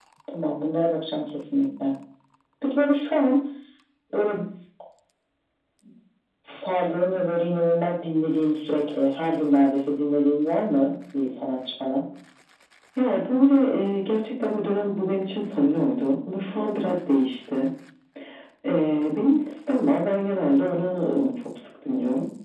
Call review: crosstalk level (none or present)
none